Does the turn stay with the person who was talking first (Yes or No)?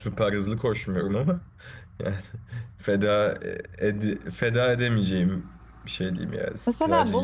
No